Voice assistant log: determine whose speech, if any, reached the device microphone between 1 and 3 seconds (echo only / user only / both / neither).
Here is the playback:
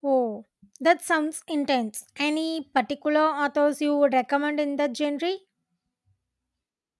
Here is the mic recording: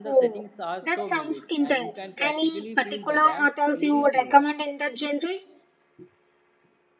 both